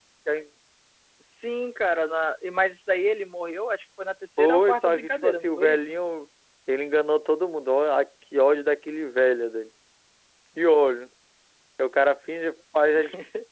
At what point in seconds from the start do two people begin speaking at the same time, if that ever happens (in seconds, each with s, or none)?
4.4 s